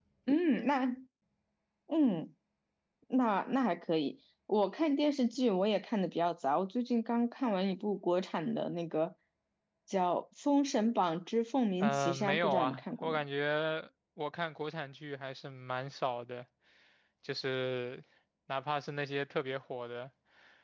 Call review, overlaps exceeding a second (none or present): present